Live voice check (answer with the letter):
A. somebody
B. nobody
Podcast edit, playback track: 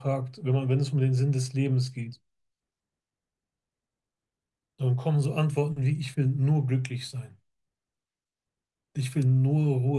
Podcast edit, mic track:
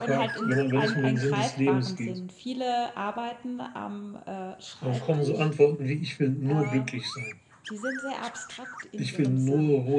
A